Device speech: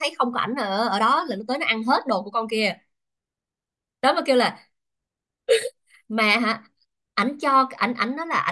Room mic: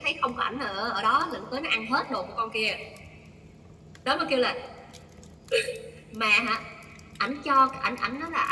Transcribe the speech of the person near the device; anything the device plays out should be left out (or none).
none